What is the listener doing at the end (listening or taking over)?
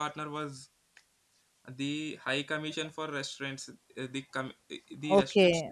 taking over